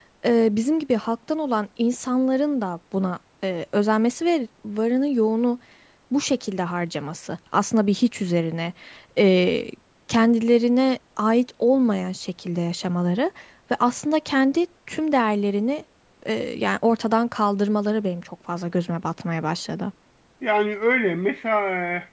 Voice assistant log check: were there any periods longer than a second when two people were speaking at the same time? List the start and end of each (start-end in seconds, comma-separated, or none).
none